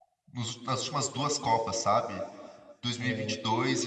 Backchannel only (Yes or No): Yes